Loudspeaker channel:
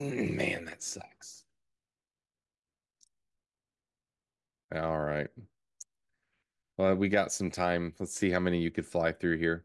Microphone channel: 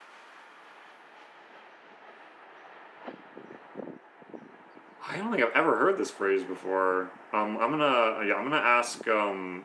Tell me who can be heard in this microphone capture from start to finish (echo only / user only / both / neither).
user only